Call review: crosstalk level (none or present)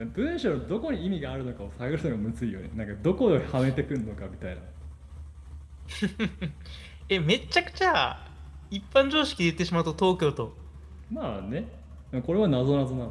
none